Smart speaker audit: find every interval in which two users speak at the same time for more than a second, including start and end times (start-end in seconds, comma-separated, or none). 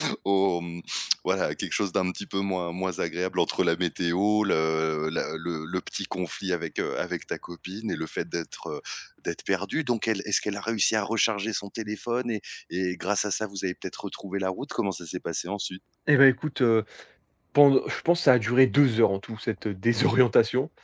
none